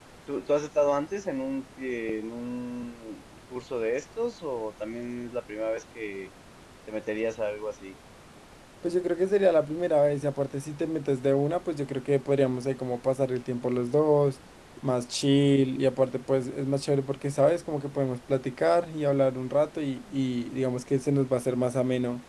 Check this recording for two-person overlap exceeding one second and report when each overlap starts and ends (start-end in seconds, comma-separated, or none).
none